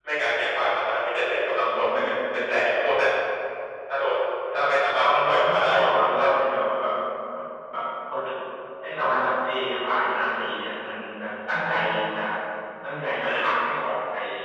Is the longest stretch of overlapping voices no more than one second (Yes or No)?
No